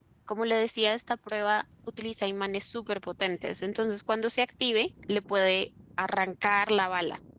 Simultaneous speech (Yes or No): No